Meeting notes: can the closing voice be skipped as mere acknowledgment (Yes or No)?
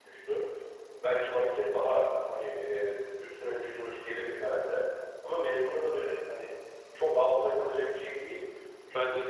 Yes